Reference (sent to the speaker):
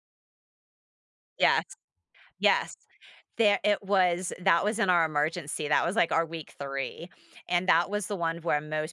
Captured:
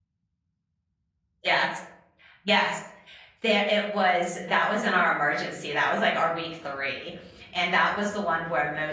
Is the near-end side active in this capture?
No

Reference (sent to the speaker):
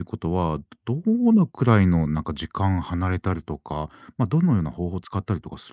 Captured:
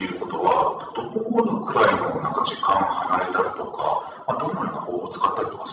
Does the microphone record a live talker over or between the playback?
No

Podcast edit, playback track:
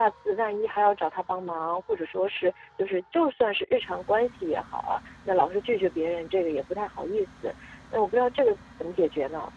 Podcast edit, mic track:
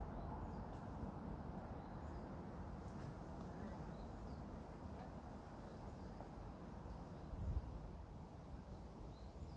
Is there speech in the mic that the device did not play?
No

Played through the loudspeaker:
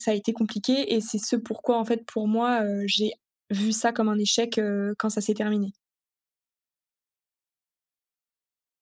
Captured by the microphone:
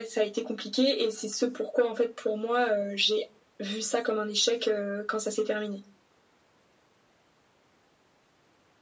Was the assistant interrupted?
No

